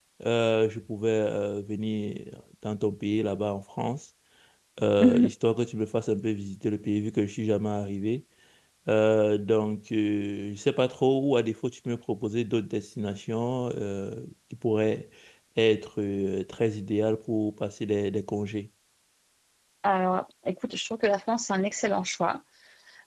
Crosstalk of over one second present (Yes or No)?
No